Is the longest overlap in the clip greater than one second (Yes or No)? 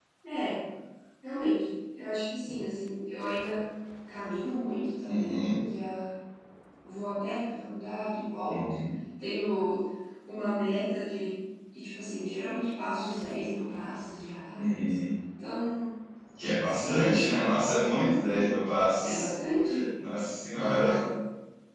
Yes